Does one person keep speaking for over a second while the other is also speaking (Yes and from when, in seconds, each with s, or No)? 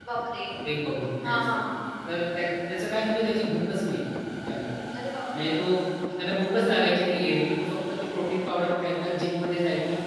No